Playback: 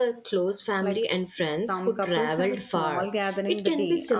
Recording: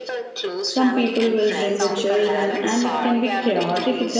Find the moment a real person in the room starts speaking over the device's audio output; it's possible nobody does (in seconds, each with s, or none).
0.7 s